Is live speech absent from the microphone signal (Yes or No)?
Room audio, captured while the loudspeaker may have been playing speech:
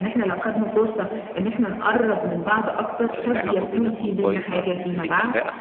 No